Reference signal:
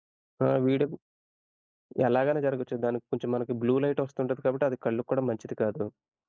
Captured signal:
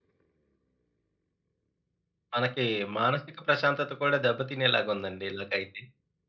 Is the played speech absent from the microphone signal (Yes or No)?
Yes